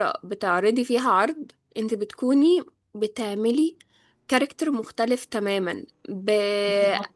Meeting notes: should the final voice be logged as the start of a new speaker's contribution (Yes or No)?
No